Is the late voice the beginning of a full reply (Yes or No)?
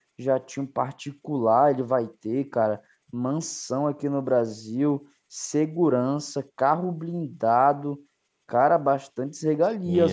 Yes